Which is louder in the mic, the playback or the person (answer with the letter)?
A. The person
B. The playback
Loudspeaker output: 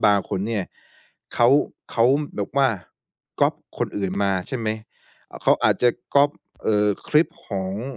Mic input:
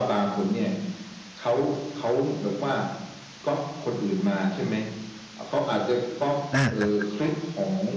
A